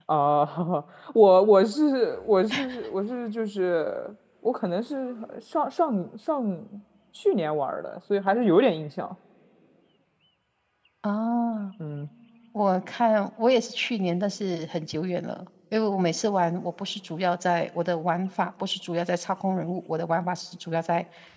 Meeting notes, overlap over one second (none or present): none